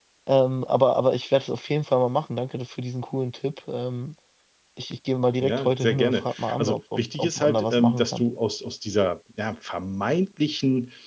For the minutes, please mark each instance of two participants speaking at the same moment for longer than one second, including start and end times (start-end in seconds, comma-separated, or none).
5.4-8.2